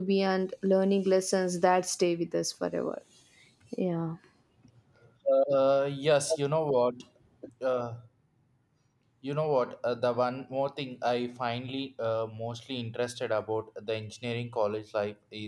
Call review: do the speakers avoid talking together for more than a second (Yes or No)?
Yes